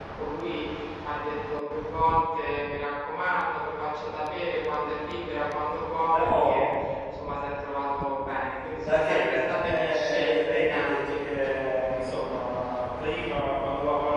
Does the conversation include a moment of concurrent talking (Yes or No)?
Yes